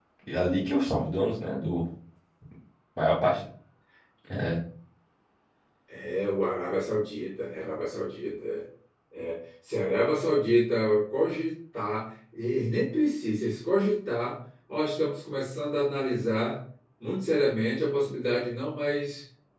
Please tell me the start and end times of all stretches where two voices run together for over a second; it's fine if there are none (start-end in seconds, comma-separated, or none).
none